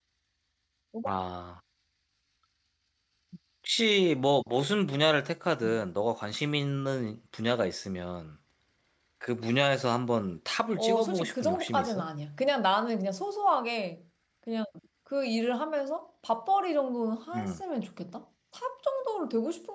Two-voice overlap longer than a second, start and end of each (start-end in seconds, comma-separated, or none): 10.8-12.0